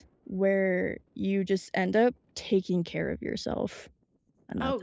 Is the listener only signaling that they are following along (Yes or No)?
No